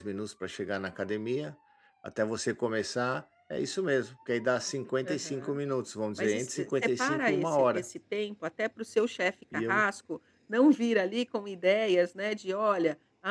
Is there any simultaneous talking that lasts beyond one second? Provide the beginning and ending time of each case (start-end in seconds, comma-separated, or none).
6.2-7.8